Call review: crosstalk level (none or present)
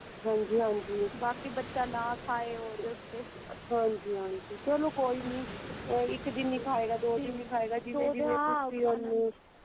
present